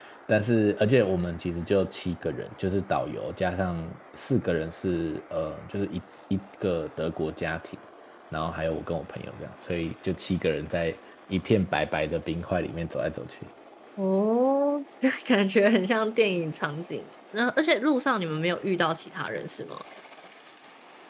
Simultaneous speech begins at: none

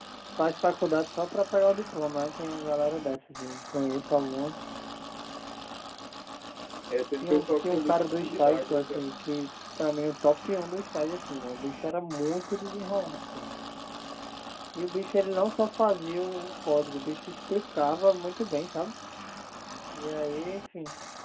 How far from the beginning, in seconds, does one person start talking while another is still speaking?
7.2 s

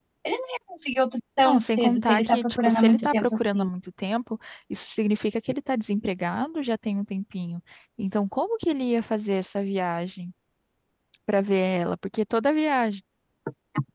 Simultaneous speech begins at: 1.4 s

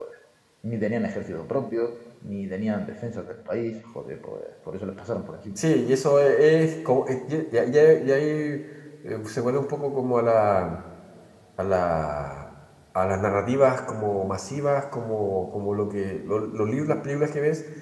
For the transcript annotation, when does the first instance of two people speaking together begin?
none

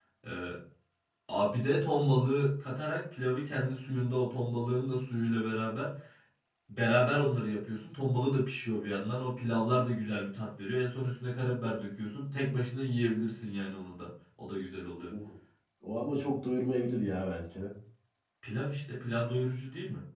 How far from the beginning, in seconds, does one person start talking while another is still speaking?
none

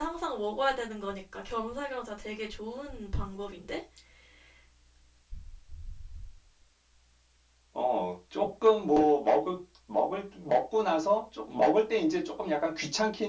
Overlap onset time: none

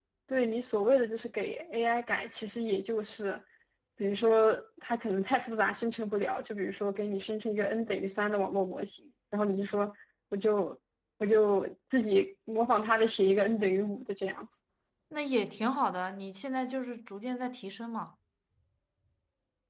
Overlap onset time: none

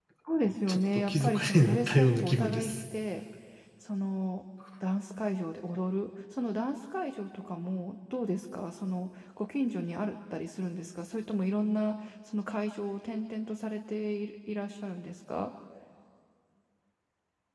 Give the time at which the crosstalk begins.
0.7 s

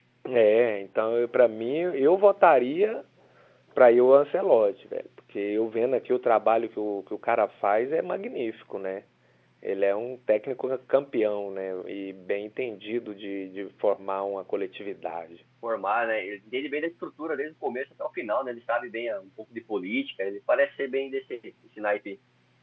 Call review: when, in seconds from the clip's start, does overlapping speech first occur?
none

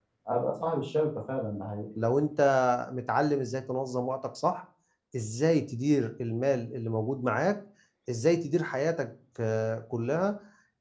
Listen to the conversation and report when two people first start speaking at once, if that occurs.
none

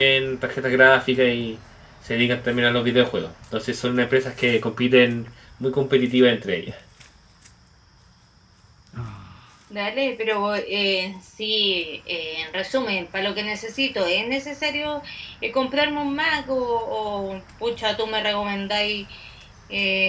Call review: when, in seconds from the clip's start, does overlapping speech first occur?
none

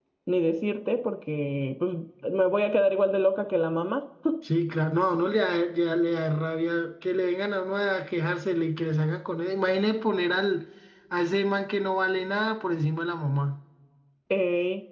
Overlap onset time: none

